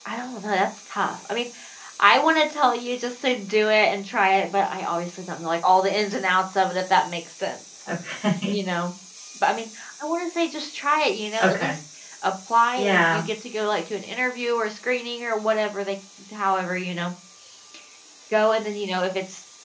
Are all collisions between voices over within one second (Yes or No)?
Yes